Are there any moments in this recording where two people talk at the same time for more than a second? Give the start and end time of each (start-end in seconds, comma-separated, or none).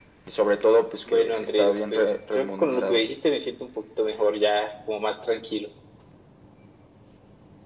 1.1-3.0